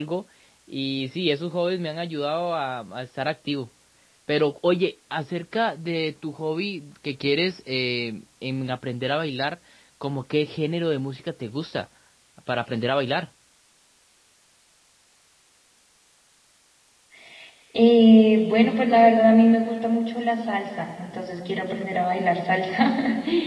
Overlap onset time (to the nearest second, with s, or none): none